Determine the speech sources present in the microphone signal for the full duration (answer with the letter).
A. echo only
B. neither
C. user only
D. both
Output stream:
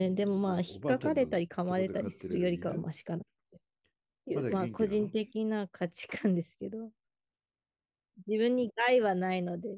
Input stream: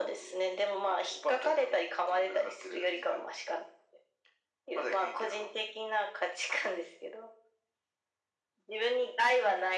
A